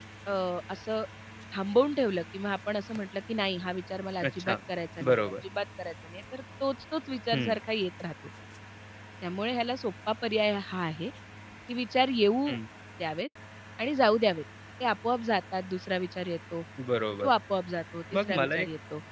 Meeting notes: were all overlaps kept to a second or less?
Yes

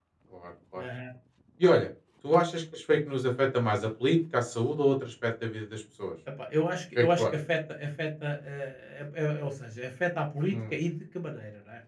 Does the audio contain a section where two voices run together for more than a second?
No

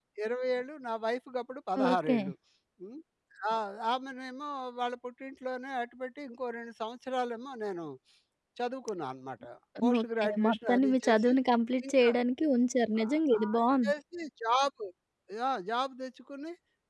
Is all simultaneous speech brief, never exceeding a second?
No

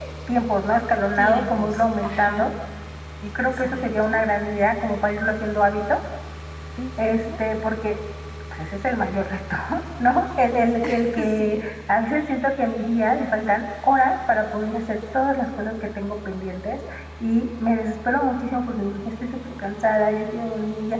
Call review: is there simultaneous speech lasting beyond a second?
Yes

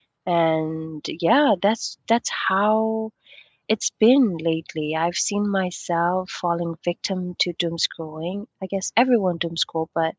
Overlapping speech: No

